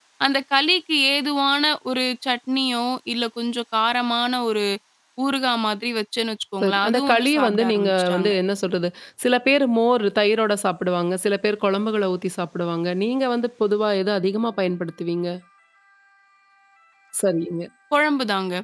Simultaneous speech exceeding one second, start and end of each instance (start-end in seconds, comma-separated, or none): 6.6-8.3